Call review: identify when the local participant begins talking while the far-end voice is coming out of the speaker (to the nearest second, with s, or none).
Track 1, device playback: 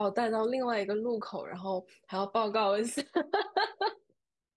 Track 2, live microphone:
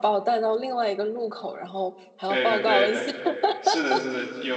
2 s